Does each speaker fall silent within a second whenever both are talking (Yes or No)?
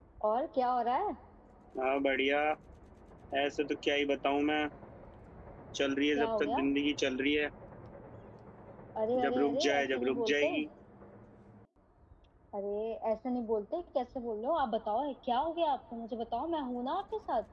No